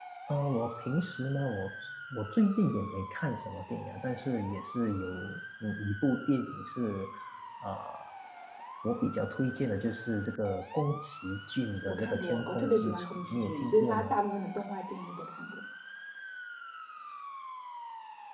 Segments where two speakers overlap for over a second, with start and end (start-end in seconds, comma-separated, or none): 11.9-14.1